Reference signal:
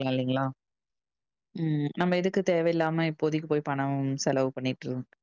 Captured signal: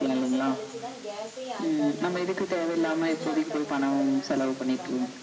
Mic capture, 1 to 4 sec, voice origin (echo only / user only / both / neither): both